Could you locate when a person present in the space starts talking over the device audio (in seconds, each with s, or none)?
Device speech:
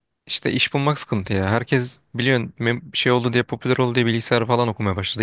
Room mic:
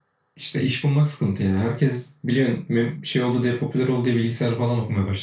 none